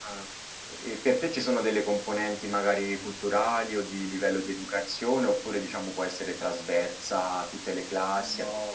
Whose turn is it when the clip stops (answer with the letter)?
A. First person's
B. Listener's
B